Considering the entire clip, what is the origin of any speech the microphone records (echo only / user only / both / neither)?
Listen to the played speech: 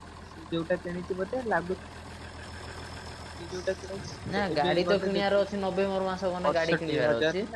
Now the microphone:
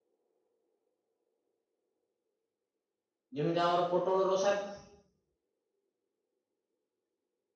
user only